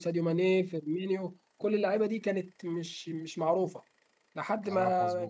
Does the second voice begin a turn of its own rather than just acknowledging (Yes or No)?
No